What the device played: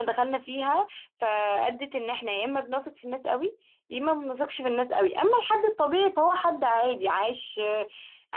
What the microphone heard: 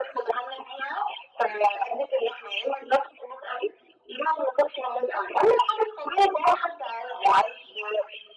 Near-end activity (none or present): none